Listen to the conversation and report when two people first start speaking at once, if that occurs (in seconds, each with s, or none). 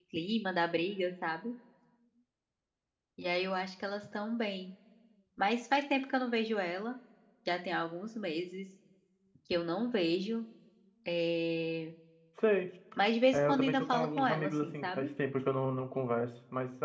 13.3 s